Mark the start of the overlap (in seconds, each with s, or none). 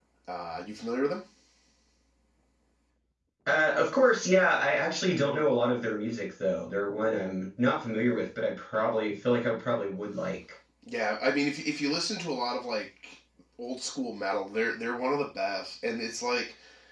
none